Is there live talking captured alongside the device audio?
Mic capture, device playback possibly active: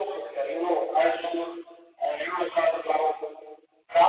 No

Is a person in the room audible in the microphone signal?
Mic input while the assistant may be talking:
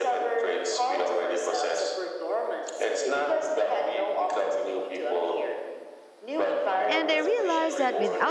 Yes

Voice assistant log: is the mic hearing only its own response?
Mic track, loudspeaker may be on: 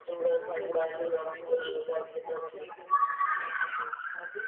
No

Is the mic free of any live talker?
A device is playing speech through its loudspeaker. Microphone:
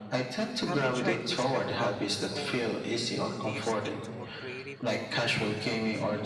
No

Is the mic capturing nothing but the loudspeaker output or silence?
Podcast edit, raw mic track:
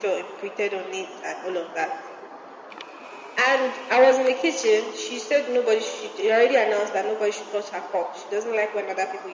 Yes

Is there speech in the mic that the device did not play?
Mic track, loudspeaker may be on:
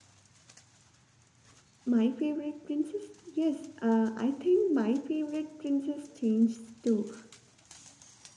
Yes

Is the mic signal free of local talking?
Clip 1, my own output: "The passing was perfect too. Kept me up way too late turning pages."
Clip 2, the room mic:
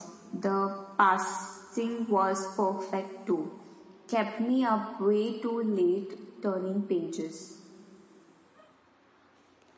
Yes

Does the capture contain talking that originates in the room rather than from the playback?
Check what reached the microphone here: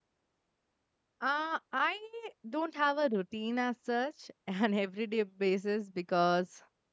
Yes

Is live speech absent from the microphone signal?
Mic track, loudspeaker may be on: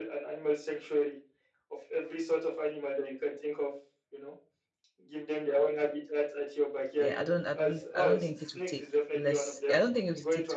No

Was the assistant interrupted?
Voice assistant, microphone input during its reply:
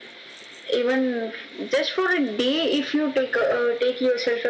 No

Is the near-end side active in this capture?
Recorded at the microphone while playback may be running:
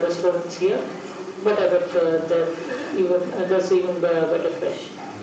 No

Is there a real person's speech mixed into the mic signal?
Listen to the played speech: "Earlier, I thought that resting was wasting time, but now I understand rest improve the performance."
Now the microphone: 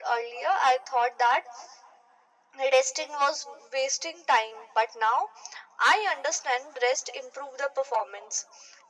No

